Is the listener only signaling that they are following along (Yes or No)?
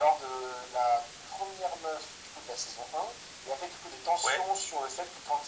Yes